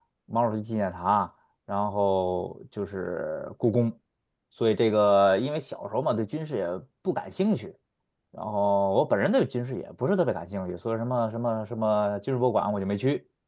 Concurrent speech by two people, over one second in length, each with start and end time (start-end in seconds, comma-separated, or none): none